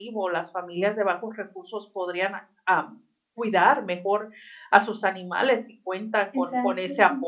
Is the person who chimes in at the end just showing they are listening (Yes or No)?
Yes